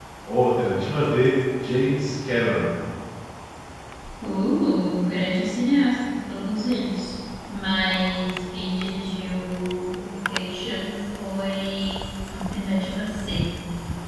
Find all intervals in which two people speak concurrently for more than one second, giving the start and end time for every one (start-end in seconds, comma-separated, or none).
none